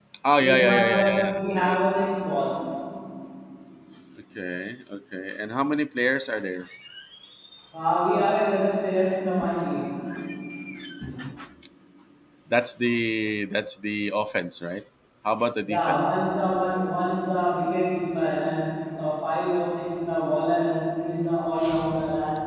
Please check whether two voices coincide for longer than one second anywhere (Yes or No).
Yes